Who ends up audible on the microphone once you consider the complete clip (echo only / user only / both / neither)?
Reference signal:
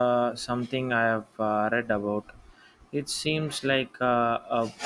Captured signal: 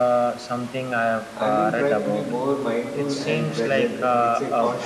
both